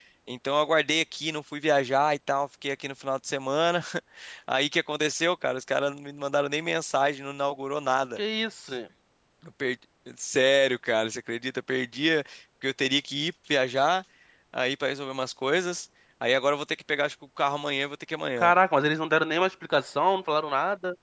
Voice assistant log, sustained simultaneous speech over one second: none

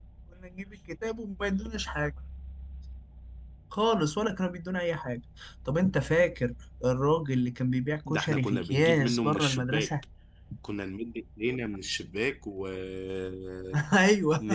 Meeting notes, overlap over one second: present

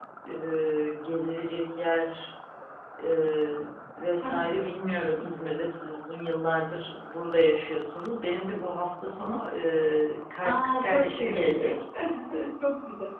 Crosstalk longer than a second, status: present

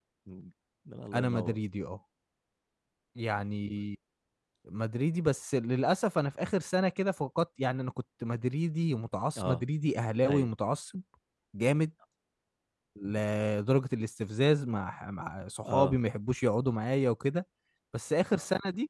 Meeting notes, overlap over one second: none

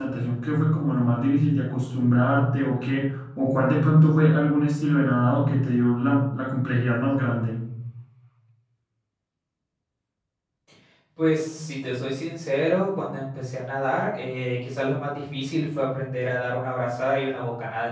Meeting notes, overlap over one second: none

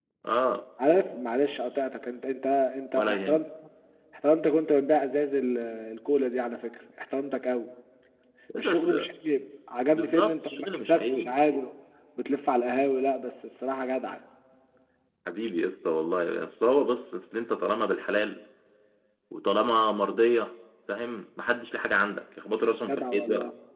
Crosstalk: present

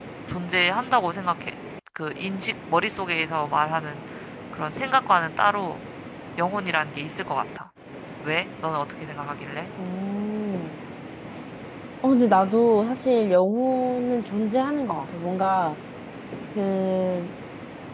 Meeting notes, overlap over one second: none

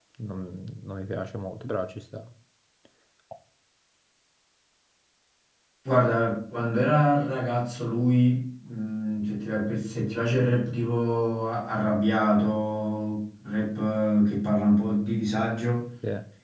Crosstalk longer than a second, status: none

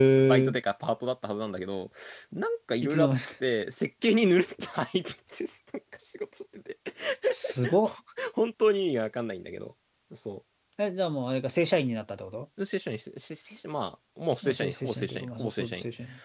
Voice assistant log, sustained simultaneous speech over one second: present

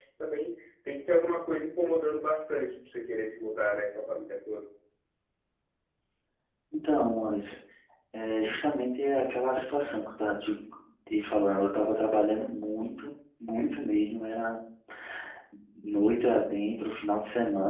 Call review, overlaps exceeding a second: none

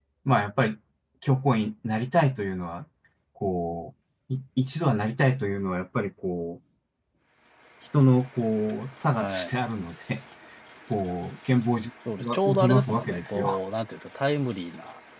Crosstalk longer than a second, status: present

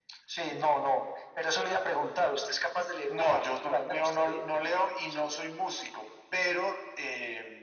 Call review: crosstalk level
present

